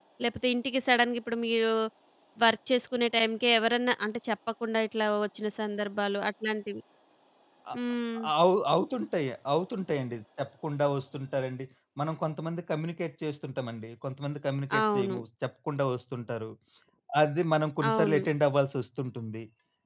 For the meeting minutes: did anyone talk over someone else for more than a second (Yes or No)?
No